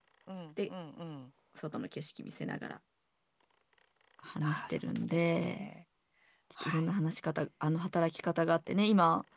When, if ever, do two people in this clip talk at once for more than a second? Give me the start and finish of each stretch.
4.4-5.7

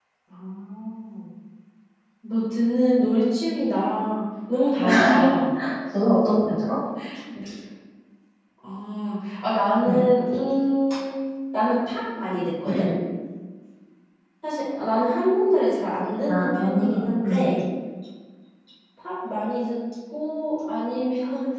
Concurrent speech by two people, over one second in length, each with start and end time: 16.3-17.5

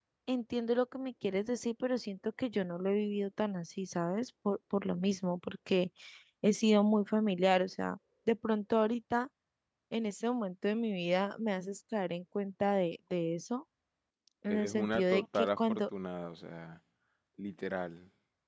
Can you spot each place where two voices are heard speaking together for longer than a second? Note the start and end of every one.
14.5-15.8

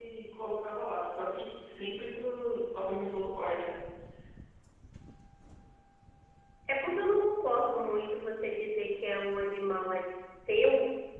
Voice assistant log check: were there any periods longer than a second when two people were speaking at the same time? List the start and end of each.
none

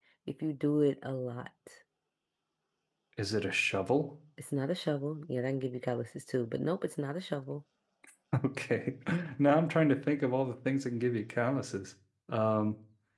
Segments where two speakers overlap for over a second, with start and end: none

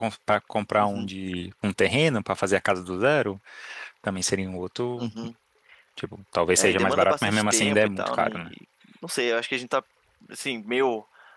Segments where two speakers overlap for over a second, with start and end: 6.6-8.5

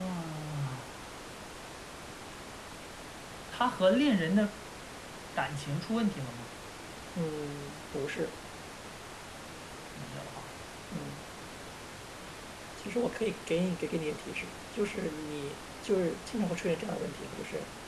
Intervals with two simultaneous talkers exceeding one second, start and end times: none

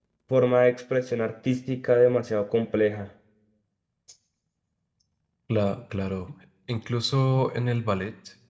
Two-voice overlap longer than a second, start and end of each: none

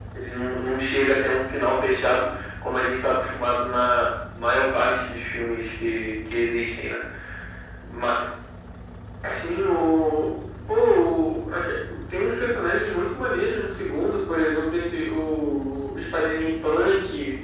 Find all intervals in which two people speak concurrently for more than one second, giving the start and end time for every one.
none

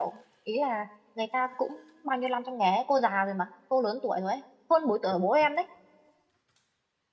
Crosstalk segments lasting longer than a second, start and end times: none

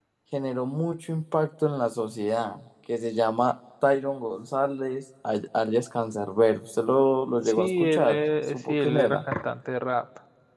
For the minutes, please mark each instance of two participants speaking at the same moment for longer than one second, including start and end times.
7.4-9.2

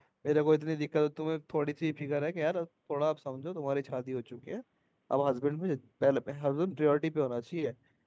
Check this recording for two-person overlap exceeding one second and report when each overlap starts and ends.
none

